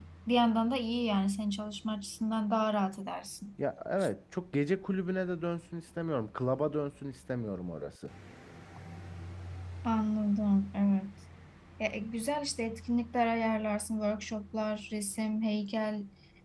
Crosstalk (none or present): none